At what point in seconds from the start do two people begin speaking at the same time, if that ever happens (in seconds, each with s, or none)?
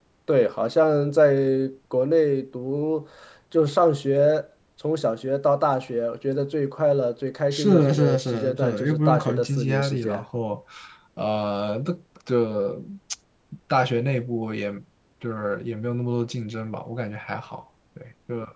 7.5 s